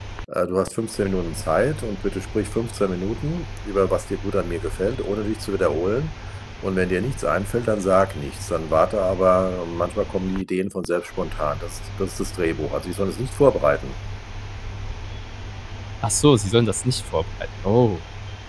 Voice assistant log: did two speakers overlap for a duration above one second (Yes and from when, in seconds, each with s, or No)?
No